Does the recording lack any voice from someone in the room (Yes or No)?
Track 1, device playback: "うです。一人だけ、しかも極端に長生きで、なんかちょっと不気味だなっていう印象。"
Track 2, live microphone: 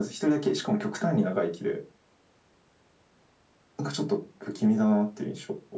Yes